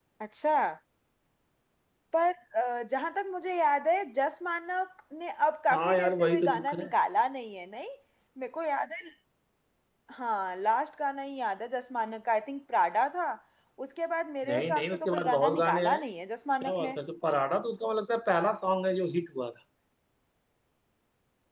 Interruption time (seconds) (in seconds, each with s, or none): 5.7 s